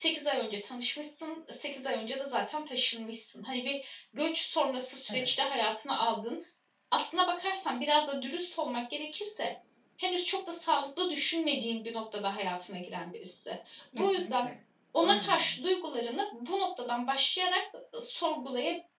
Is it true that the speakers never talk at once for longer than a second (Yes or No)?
Yes